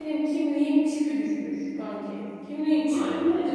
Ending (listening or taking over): listening